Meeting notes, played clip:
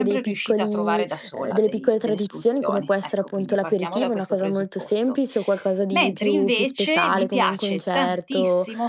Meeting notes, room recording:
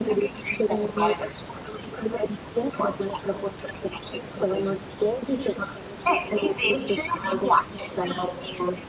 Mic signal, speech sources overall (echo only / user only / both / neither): echo only